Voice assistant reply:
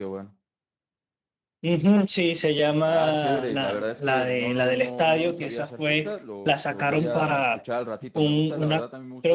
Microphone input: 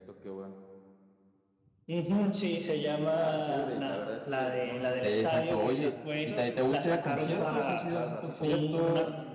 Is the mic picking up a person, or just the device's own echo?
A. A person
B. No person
A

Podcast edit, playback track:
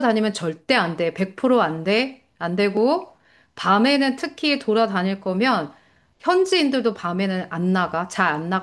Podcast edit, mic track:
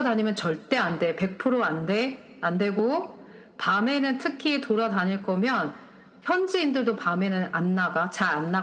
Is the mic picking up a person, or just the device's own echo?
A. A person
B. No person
B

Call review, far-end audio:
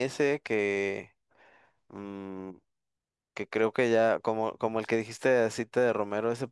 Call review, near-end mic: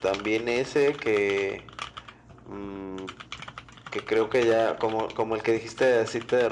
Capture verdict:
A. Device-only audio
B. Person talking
A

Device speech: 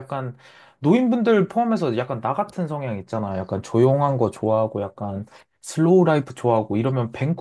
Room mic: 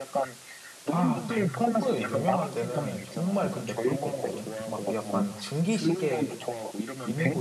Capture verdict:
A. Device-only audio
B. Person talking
B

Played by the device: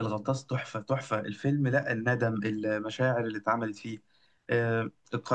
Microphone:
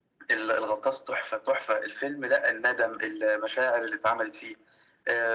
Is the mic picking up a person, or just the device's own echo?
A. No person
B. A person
A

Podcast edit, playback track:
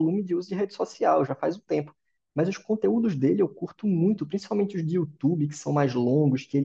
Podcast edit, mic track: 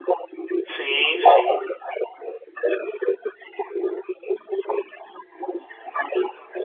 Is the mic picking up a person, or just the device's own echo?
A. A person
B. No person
A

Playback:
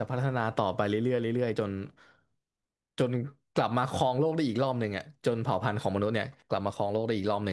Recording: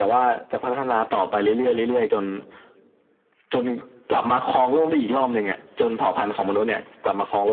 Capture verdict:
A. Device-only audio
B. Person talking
A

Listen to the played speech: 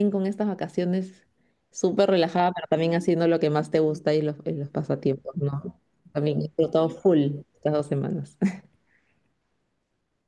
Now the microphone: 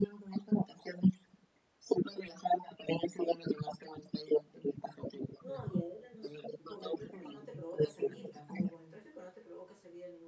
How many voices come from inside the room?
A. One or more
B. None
A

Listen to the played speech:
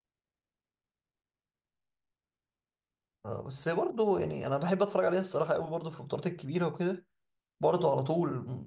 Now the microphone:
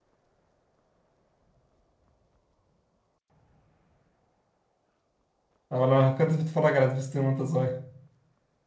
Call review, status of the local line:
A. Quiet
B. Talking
B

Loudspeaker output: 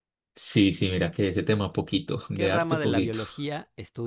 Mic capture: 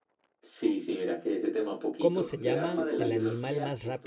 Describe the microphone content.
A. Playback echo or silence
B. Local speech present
B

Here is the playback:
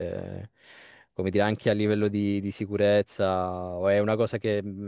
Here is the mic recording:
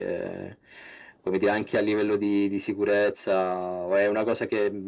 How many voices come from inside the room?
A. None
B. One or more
A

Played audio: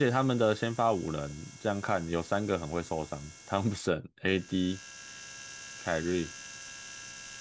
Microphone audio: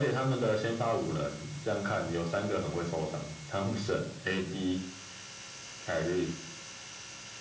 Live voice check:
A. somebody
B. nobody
B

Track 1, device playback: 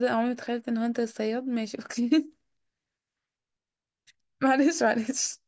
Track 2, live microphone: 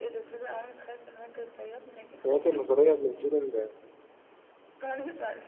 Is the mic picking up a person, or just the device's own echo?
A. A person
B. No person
A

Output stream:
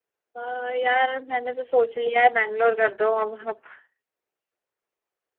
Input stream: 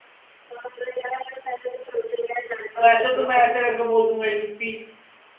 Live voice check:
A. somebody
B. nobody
A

